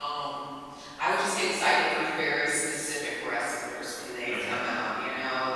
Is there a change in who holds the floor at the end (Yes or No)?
No